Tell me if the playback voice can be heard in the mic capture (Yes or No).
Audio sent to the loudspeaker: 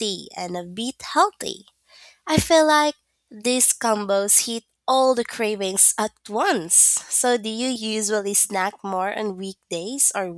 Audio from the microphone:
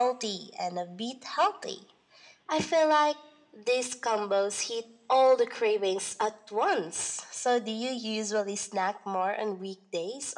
Yes